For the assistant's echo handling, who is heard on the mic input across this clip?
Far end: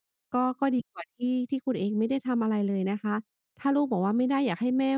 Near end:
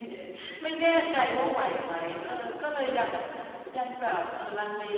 user only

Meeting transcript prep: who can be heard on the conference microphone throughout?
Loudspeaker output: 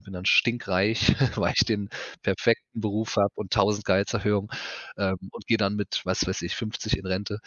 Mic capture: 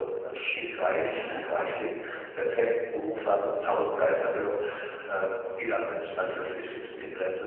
echo only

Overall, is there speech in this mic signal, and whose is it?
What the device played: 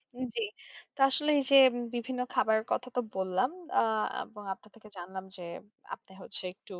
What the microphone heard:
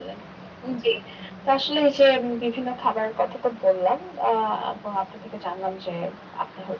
echo only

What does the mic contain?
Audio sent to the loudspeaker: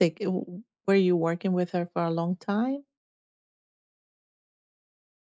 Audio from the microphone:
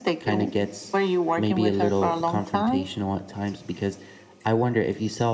both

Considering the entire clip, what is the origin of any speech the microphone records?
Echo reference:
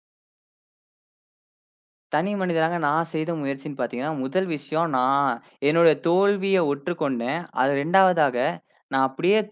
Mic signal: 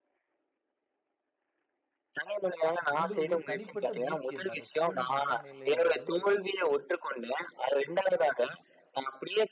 both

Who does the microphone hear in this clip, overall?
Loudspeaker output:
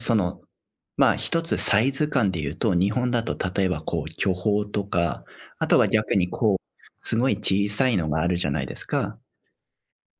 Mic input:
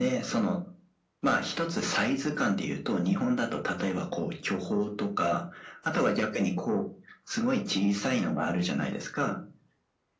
echo only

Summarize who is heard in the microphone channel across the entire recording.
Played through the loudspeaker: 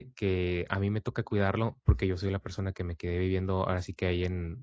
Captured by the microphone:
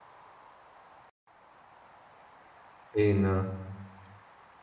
user only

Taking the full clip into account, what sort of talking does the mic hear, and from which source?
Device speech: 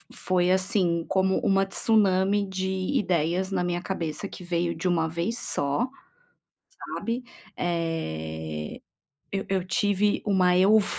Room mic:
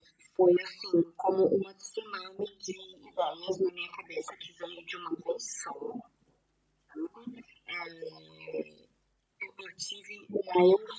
echo only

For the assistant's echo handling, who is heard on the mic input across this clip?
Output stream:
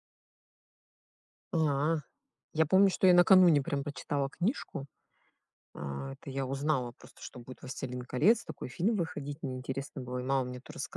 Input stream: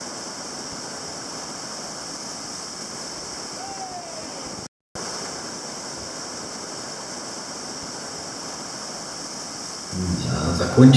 user only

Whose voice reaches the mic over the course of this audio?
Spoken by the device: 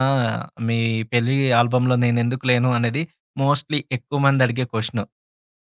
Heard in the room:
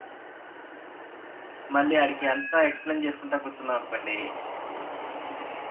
user only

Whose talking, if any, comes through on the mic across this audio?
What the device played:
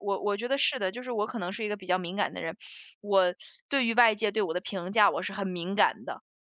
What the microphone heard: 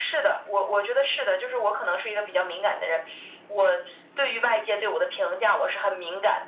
echo only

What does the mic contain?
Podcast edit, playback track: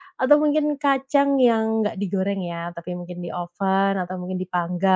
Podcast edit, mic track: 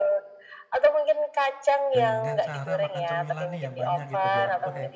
both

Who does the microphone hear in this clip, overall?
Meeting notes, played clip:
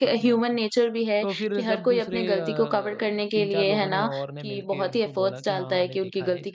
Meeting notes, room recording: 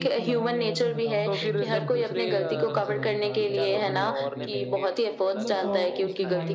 both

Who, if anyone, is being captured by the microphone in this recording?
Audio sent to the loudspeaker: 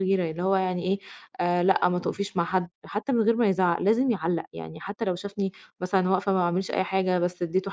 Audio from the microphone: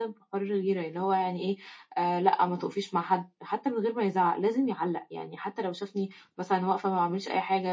echo only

